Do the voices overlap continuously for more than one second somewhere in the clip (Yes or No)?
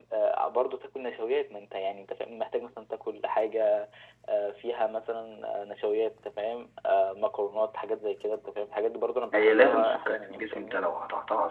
Yes